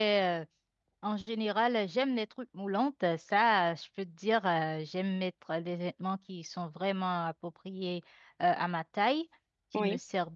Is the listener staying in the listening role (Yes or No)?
Yes